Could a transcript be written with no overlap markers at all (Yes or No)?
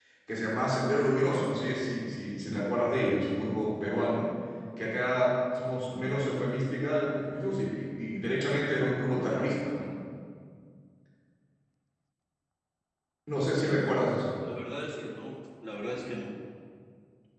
Yes